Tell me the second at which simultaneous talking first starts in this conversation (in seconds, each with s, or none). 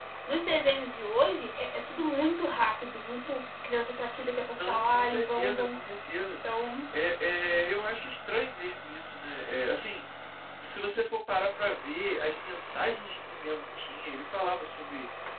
4.5 s